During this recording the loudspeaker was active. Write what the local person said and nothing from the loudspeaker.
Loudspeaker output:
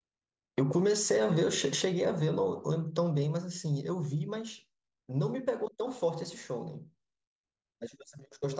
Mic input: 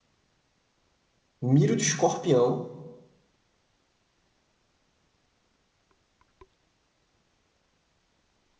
Miro de Escorpião

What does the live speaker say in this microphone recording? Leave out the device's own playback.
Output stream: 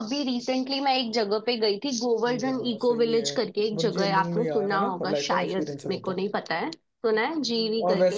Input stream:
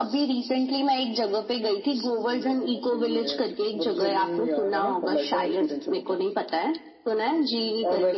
none

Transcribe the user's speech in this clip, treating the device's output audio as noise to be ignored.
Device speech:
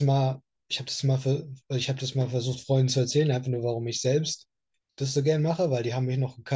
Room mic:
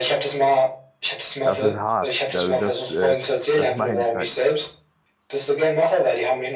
Das ist hart. Also das, äh, das meine ich halt.

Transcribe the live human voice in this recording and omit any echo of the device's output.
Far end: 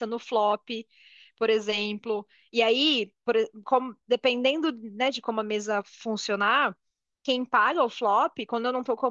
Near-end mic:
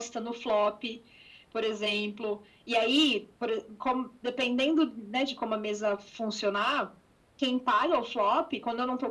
none

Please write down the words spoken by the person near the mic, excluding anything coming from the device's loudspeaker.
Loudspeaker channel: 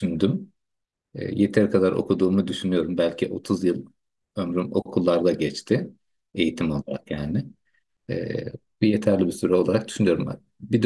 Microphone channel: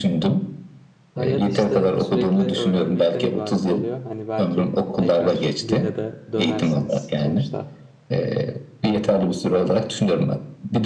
hayat işte sürekli öğrenmekten ibaret oluyor. Hani belki tekrar dile de dönersiniz. Sonuçta

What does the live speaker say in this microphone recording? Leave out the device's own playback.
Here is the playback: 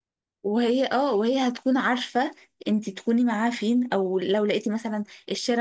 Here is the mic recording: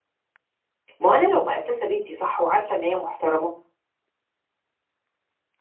ما هو انا لو مأسسه بنتي صح وعارفه ان هي محترمه

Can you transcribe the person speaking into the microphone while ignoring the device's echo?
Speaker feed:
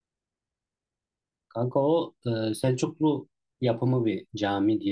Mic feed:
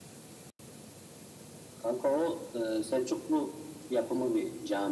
none

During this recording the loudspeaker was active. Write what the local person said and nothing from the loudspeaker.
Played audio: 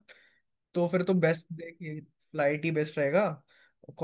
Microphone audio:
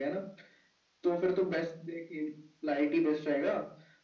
none

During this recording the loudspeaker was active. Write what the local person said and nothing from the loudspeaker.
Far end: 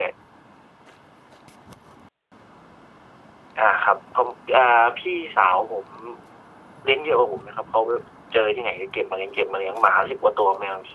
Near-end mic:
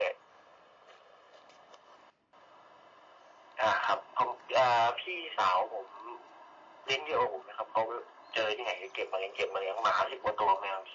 none

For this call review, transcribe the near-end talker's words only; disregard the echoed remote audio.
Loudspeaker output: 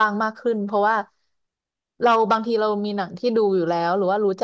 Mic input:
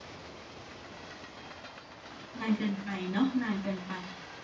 นานเกินไปเนาะนานเกินไป

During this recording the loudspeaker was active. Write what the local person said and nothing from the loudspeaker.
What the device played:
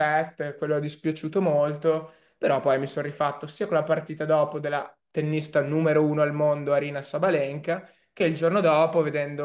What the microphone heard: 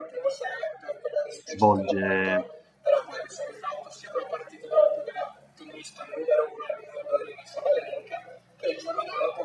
svolge

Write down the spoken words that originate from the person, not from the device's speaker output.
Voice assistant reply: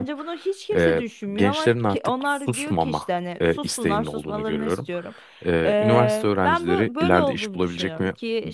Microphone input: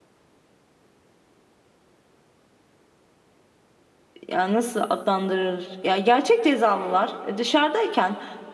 ya nasıl adlandırır? Ya gerçek cezalılar e, dışarıdayken

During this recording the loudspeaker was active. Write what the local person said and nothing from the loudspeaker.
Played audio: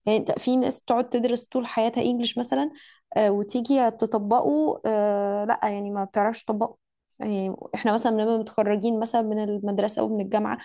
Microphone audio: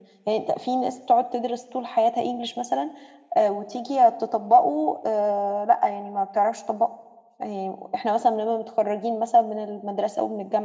none

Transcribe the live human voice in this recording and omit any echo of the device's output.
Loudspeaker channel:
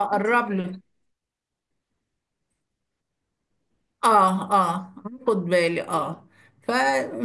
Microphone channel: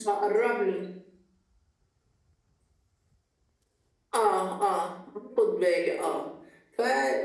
none

